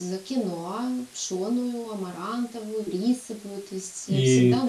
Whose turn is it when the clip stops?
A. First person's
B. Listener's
B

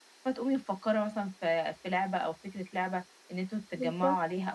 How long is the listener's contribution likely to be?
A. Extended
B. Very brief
B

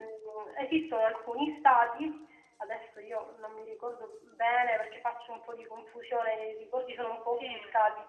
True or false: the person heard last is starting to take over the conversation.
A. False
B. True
A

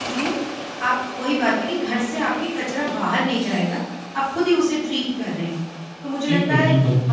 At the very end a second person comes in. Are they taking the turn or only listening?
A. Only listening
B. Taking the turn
A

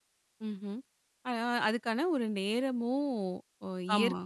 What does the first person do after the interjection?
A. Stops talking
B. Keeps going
B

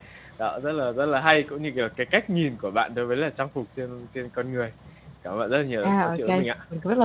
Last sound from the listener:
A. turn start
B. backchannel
A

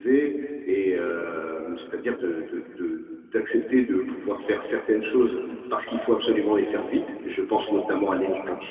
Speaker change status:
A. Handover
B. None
B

